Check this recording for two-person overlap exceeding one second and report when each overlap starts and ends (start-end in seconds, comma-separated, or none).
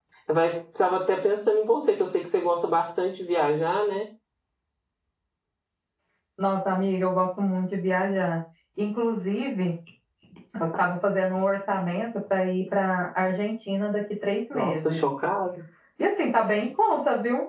none